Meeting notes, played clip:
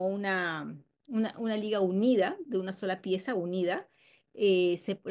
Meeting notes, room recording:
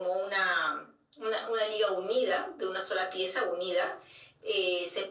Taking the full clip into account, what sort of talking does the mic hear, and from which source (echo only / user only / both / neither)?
echo only